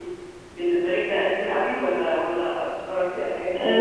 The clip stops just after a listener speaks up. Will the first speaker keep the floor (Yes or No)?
No